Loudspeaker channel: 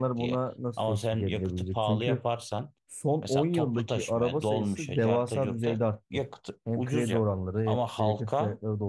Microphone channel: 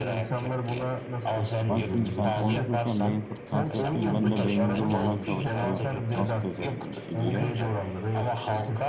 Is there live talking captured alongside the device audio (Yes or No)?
Yes